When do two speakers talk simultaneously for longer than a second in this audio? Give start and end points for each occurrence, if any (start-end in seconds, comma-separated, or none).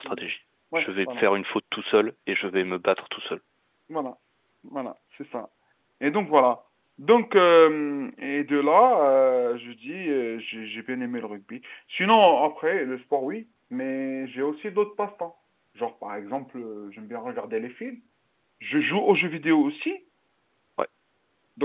none